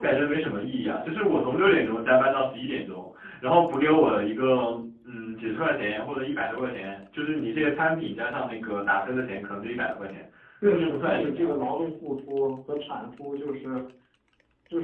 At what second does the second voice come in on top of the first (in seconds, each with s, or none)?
10.6 s